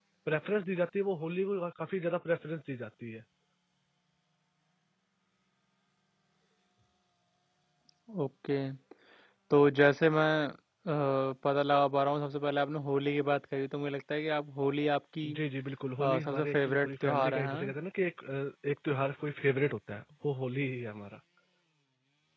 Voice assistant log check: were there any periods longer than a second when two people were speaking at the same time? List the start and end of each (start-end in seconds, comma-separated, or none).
16.0-17.7